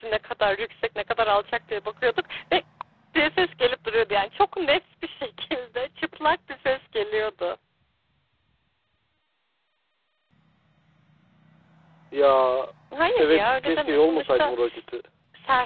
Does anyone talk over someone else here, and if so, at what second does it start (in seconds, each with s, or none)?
13.2 s